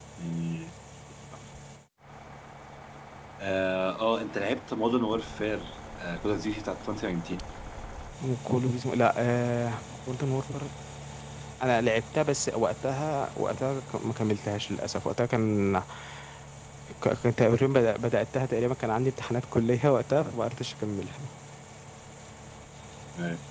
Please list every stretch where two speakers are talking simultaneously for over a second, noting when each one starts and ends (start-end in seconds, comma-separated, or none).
none